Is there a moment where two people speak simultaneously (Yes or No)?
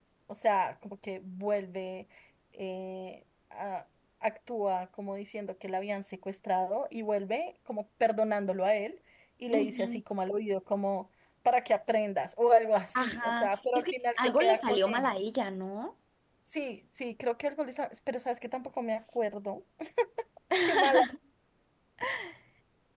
Yes